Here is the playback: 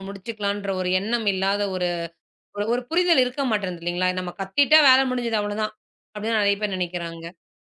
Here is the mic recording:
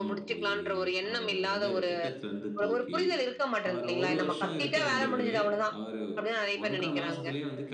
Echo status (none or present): present